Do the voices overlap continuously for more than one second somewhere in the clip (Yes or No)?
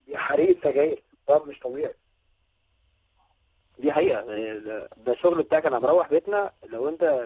No